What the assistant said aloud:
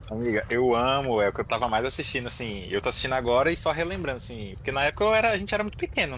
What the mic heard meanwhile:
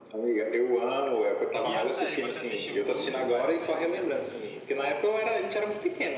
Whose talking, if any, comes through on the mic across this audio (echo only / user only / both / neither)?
both